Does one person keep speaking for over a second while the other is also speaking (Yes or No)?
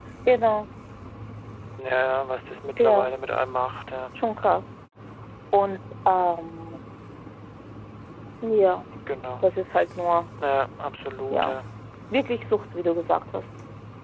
No